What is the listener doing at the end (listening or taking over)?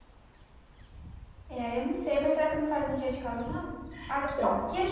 listening